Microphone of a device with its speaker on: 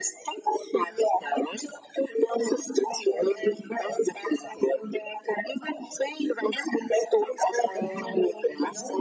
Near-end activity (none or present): present